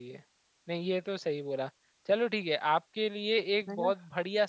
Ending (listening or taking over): listening